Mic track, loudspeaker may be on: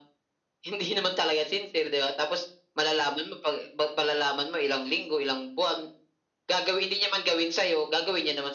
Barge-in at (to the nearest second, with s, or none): none